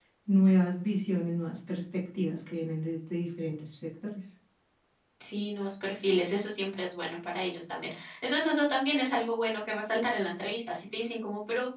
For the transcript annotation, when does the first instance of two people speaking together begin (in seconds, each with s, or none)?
none